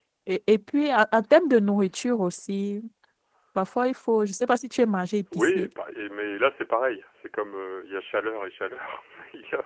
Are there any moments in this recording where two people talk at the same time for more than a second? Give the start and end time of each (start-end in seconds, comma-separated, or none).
none